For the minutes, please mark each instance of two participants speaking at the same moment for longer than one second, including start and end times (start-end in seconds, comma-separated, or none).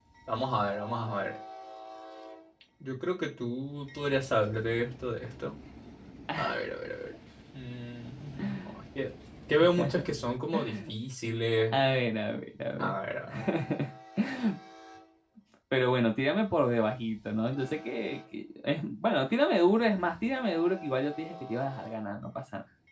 none